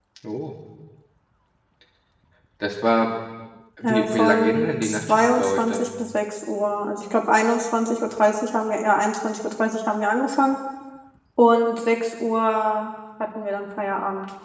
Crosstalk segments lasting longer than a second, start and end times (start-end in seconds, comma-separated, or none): 3.8-5.9